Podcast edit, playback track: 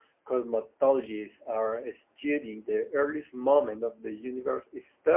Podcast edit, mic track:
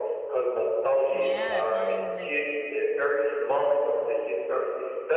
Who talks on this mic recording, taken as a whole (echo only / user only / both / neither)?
both